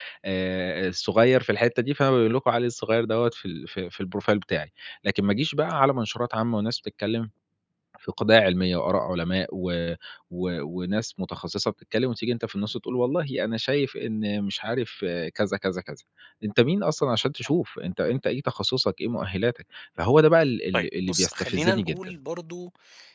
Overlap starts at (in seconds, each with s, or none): 20.7 s